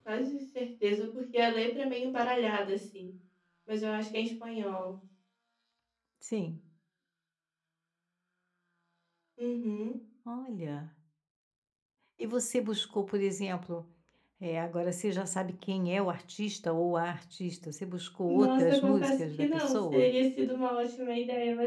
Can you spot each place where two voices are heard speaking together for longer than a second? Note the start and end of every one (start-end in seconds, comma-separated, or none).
18.3-20.1